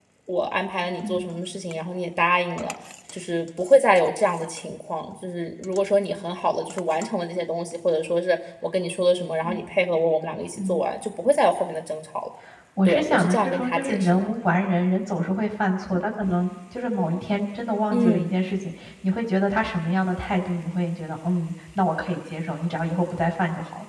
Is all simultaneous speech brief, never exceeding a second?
No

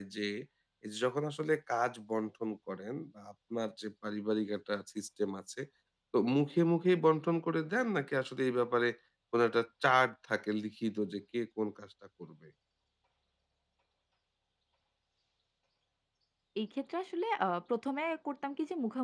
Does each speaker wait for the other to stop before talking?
Yes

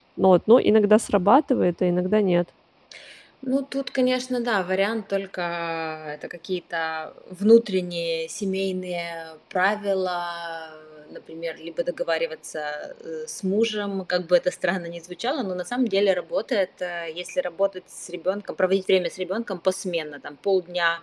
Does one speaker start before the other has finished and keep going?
No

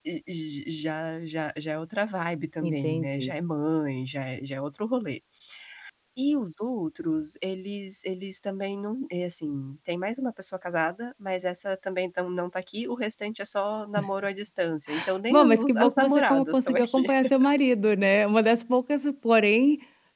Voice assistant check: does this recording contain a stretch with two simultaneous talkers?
Yes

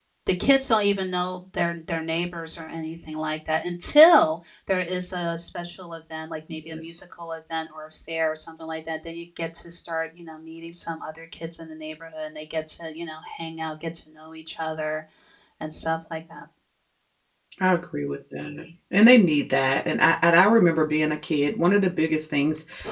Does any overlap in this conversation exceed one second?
No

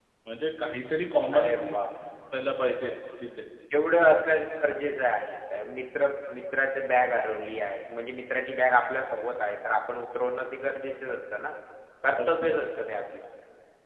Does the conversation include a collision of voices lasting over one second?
No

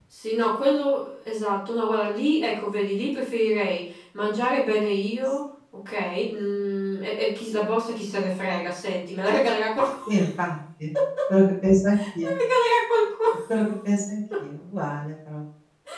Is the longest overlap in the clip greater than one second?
No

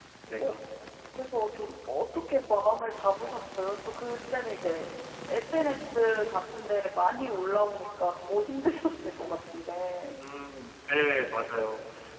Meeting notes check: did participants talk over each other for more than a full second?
No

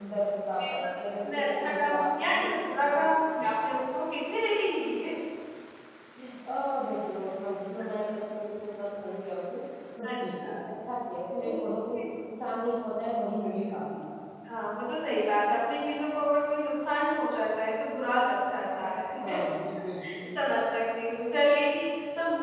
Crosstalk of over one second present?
Yes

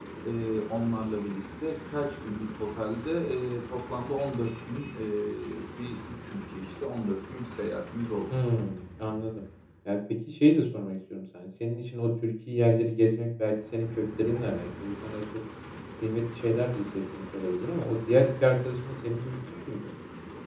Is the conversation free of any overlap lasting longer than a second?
Yes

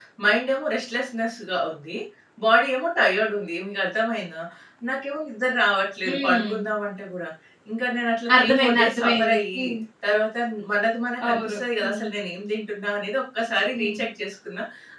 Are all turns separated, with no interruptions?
No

